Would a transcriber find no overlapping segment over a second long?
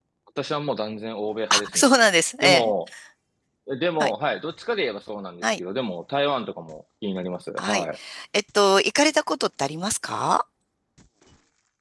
Yes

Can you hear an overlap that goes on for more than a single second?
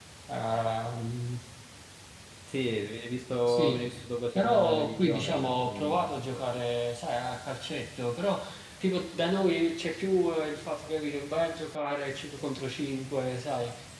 Yes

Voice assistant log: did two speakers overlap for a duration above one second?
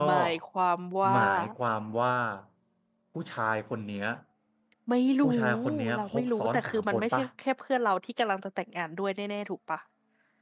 Yes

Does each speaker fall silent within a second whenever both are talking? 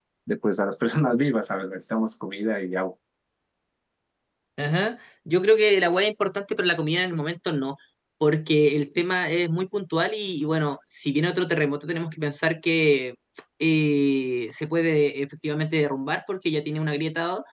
Yes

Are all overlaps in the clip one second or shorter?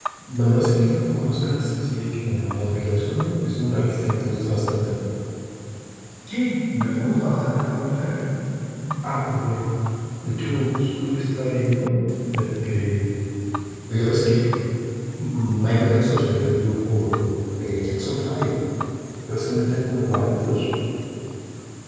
Yes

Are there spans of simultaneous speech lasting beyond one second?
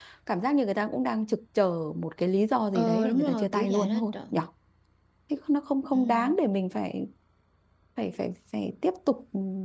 Yes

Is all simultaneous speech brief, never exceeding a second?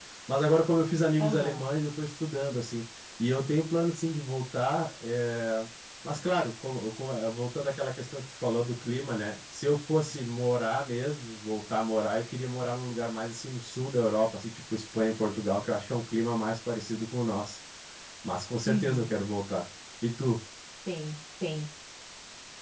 Yes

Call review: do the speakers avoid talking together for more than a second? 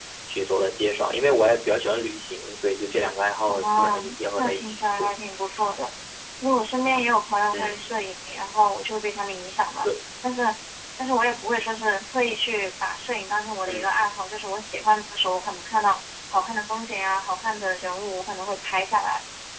No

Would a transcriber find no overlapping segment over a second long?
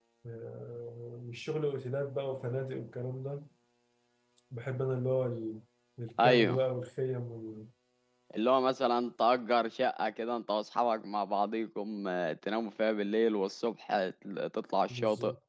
Yes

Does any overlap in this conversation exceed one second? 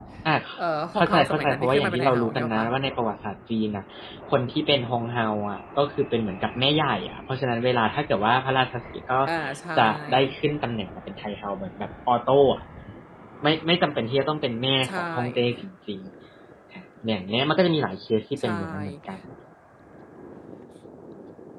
Yes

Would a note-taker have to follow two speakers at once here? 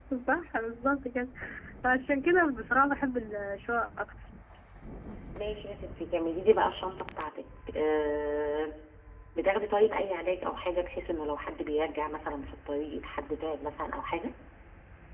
No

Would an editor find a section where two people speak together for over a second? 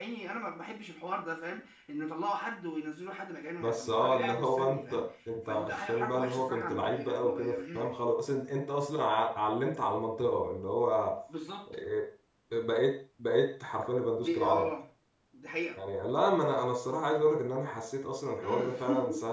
Yes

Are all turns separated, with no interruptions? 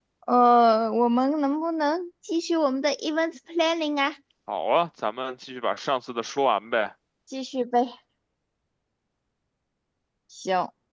Yes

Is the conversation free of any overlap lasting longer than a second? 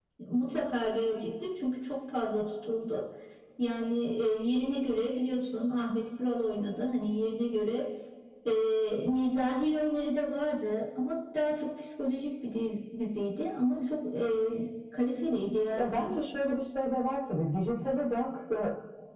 Yes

